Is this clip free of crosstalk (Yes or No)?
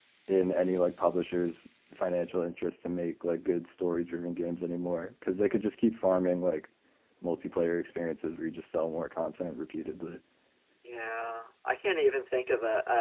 Yes